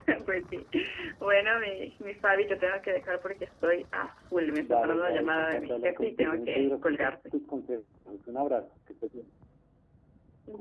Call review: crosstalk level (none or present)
present